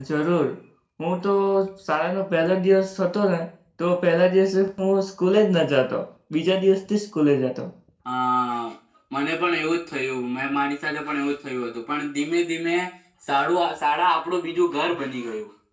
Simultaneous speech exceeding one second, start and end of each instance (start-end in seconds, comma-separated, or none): none